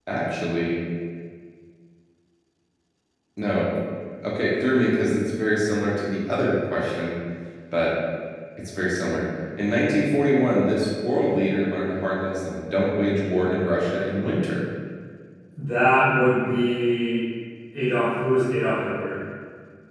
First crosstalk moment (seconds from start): none

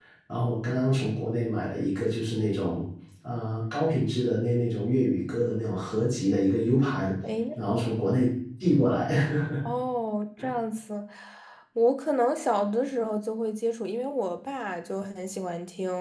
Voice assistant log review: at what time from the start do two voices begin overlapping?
none

